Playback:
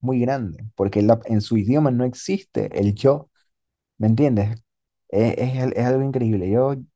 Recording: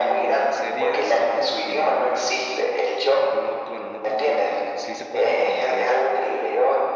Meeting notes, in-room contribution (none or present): present